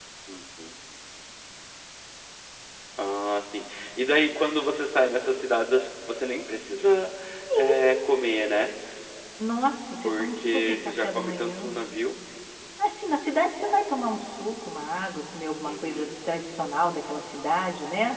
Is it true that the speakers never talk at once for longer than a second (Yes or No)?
No